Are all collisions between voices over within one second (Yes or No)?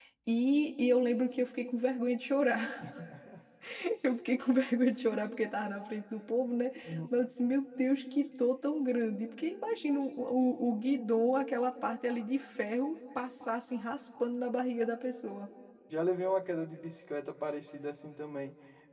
Yes